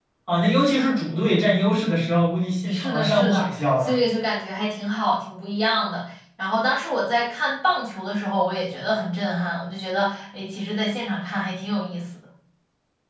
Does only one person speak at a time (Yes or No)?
No